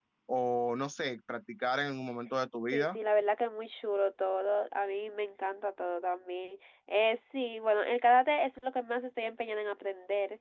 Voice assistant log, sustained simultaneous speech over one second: none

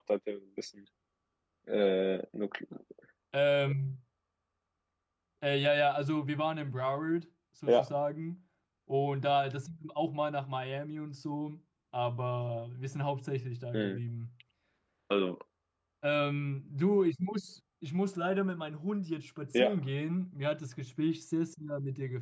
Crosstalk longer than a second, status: none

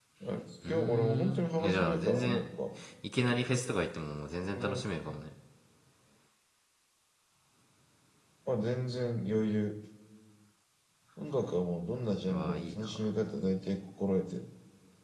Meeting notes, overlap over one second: present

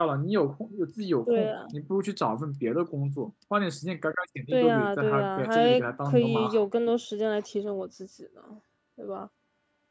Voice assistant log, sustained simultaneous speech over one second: present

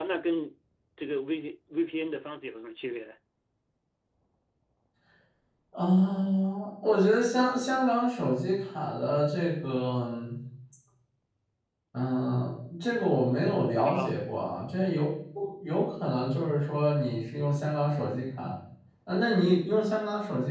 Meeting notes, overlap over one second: none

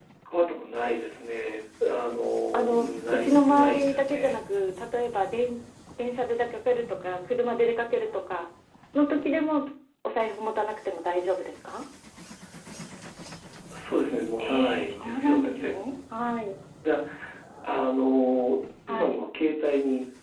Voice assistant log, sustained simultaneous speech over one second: present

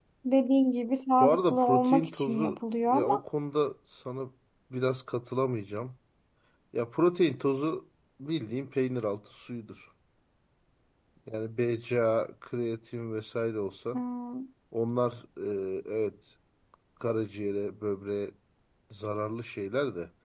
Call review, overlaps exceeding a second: present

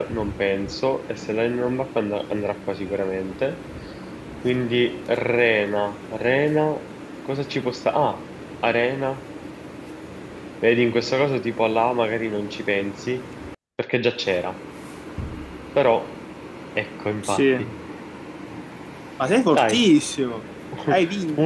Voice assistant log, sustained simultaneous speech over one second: none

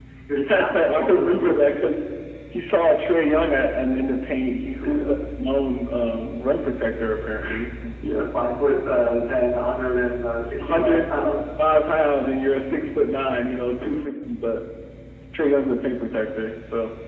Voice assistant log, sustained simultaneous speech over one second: present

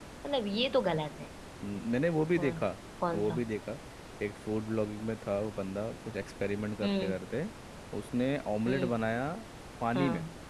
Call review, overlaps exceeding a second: none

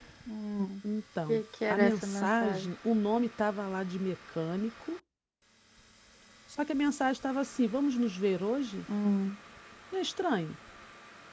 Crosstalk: present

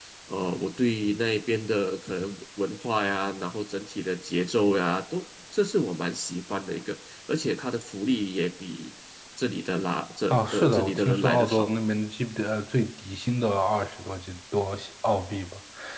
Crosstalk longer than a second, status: present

